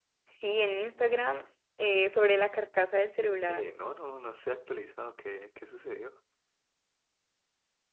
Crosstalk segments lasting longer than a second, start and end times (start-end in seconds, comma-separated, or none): none